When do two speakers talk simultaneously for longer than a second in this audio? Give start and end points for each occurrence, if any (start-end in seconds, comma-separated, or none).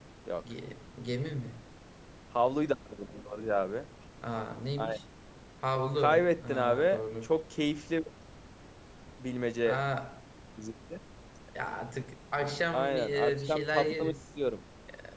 6.0-7.3, 12.7-14.1